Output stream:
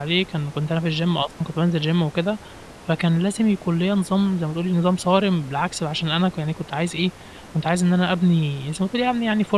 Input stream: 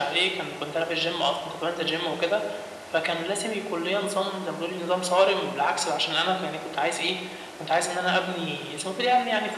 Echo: present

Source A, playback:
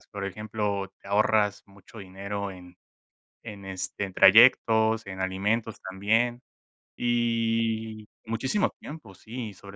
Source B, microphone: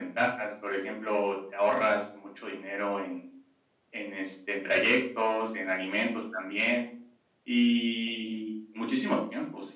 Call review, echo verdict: present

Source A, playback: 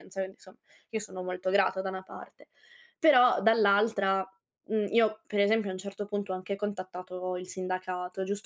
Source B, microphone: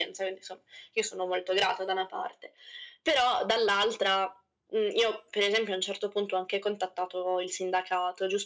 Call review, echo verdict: present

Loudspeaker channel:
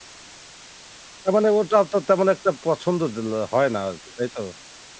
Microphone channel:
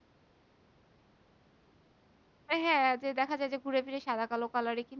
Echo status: none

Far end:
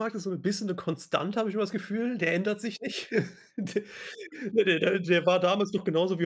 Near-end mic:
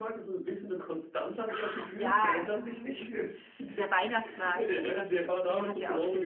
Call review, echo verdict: present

